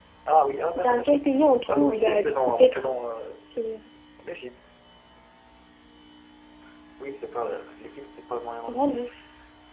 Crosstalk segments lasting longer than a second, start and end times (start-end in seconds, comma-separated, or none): 1.7-2.9